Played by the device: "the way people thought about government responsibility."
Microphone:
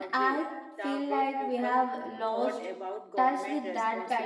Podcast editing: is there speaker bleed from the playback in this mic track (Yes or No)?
Yes